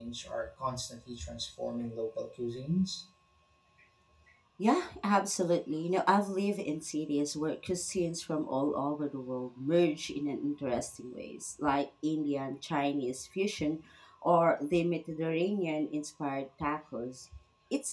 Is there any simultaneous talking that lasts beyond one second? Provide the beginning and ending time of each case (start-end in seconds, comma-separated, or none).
none